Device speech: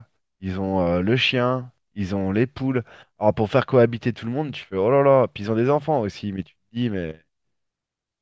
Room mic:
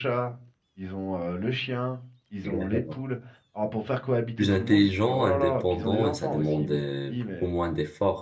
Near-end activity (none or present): present